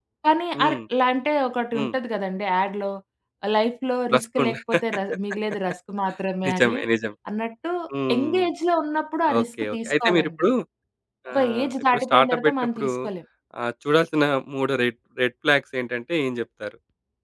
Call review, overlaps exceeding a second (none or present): present